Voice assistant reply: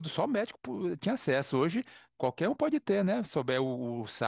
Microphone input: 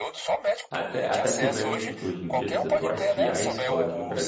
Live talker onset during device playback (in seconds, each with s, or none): 0.7 s